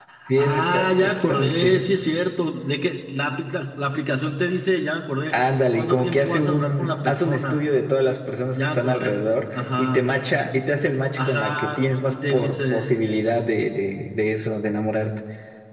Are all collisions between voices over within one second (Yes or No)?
No